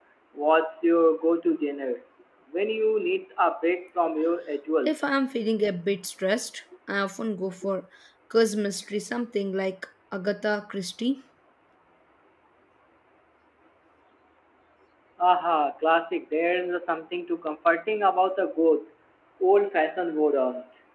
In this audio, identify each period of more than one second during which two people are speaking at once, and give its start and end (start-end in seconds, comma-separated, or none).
none